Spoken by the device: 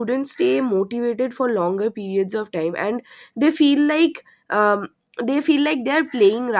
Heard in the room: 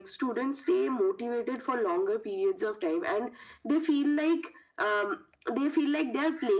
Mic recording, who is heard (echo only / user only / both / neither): echo only